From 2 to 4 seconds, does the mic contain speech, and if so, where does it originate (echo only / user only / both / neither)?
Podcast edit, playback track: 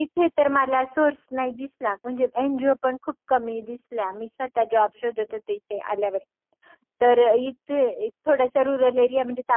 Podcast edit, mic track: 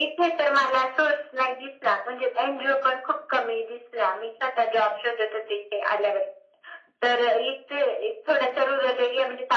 echo only